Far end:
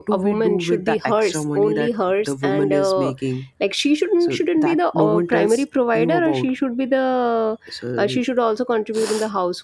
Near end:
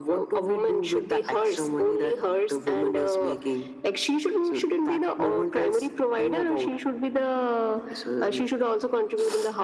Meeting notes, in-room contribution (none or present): none